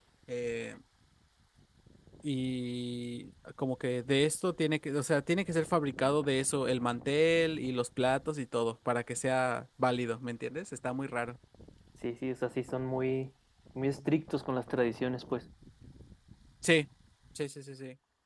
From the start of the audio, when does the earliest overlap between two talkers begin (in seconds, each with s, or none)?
none